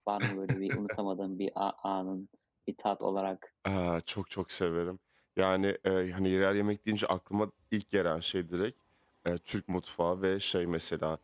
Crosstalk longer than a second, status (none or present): none